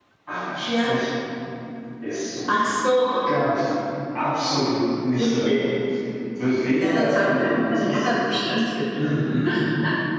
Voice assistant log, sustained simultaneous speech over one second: present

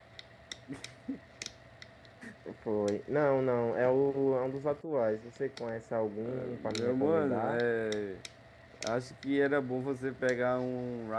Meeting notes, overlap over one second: present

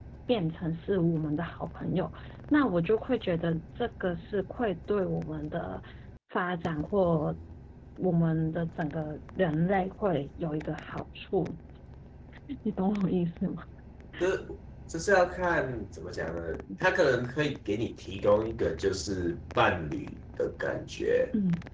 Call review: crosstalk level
none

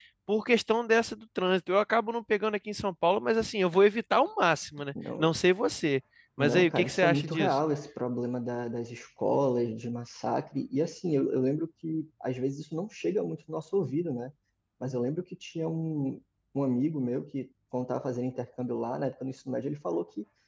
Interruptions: present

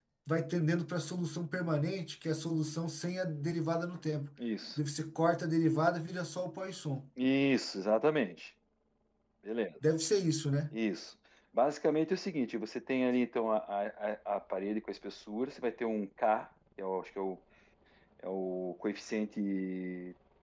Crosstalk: none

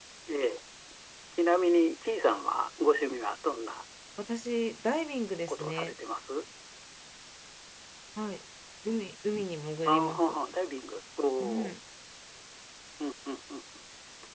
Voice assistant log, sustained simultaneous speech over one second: none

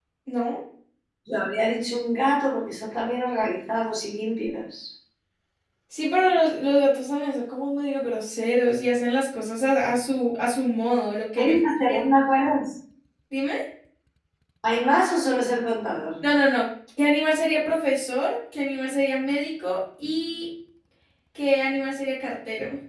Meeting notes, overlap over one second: none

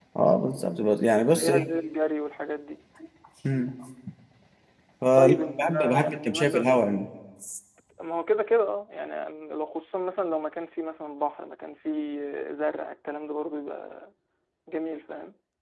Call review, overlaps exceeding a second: present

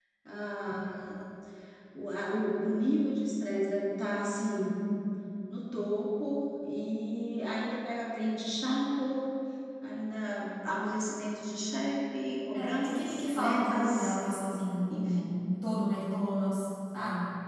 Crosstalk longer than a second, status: present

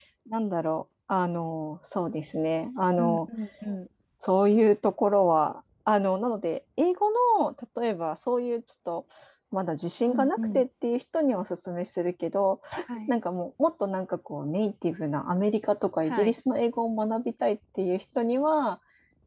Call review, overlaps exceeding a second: none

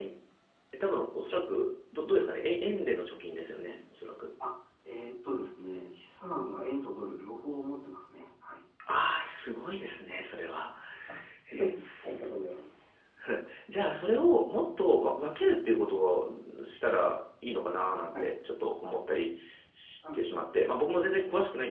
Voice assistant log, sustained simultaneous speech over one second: none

